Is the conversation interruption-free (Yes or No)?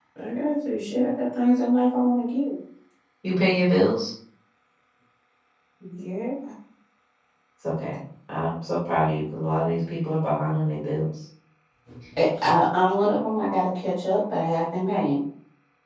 Yes